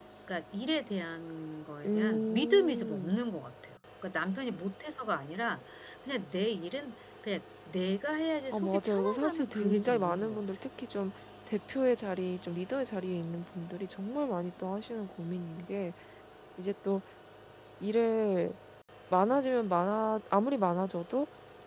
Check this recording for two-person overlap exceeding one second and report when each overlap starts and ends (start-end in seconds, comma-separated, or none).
1.8-3.2, 8.5-10.4